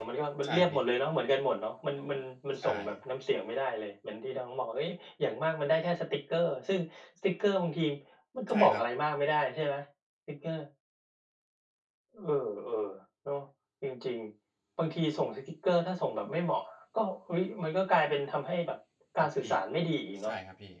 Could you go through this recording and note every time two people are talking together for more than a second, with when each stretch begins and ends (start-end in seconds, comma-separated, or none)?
none